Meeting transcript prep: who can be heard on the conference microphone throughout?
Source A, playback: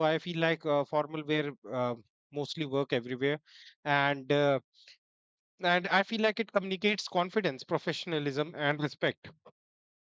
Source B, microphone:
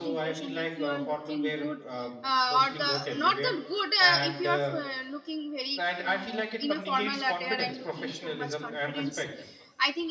both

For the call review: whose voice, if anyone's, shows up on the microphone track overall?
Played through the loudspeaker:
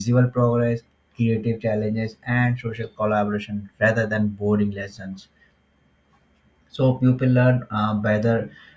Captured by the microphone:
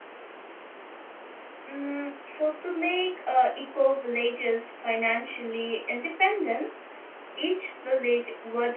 user only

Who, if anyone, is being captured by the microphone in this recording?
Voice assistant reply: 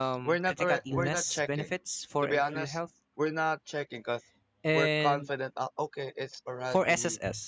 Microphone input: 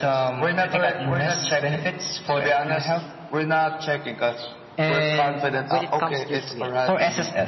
both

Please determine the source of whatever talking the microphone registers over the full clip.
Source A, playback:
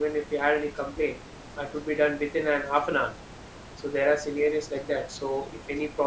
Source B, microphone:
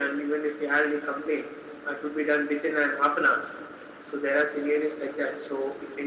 echo only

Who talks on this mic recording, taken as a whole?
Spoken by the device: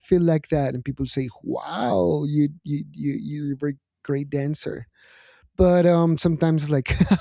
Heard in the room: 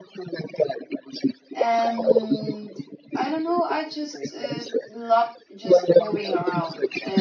both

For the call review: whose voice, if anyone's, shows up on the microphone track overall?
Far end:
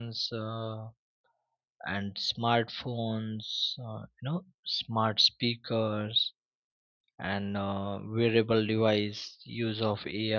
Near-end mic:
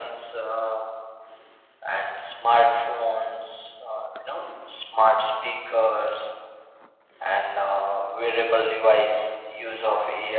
echo only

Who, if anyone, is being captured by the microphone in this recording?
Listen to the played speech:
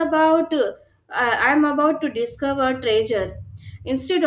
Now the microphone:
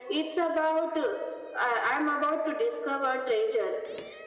echo only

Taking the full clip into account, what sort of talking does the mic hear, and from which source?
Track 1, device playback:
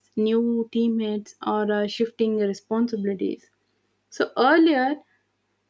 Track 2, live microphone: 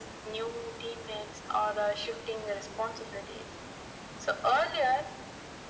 echo only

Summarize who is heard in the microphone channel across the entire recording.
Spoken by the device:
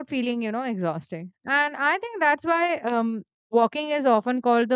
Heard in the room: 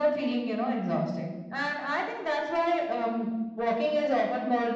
echo only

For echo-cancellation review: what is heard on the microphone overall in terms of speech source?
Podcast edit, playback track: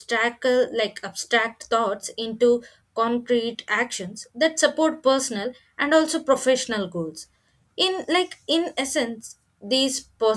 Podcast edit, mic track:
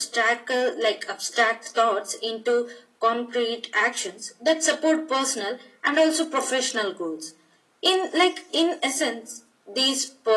echo only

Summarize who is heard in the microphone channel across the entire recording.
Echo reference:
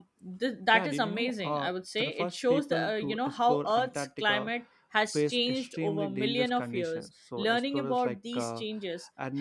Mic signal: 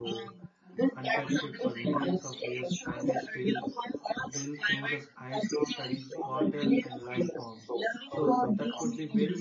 both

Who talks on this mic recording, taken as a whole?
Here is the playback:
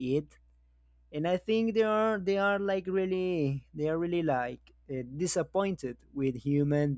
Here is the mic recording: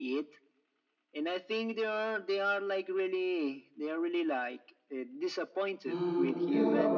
both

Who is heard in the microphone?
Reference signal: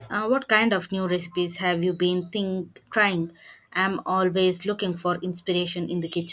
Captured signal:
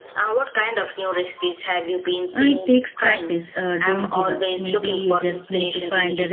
both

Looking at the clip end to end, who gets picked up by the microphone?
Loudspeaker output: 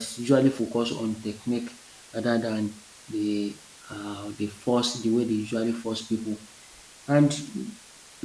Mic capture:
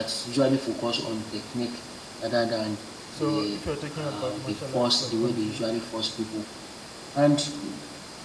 both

